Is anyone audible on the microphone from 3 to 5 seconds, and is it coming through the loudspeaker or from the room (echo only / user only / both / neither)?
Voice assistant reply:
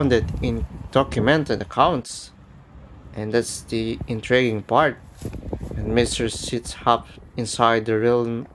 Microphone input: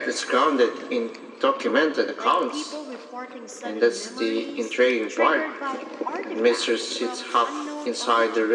both